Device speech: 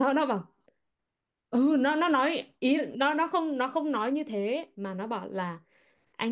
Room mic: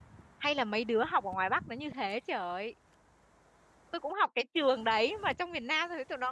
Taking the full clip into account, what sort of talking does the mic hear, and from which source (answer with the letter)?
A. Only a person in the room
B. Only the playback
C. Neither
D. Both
A